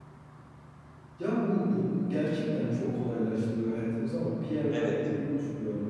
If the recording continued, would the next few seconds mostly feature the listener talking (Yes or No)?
No